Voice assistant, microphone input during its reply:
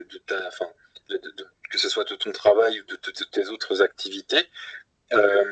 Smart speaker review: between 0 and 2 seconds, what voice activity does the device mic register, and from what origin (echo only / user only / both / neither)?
echo only